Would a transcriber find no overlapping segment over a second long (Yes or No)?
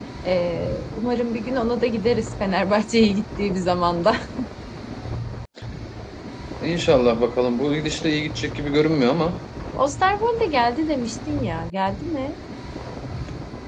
Yes